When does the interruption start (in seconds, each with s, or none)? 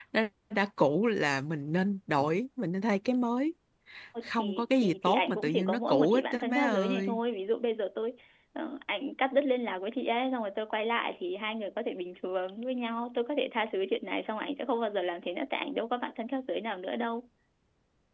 4.2 s